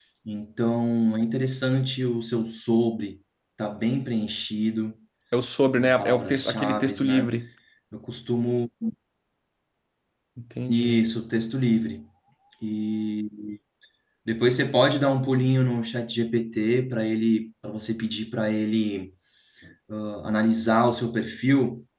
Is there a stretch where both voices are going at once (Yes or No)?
Yes